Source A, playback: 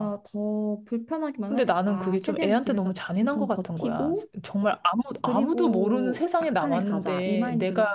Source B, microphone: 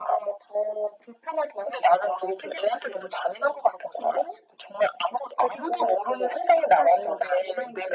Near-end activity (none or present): none